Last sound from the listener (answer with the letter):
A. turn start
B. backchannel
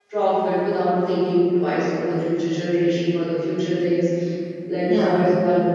B